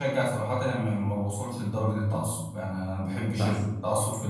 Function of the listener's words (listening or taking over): listening